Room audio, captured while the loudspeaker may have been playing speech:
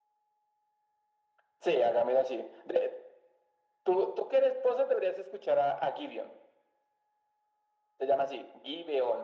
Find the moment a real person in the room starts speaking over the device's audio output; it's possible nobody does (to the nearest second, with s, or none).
none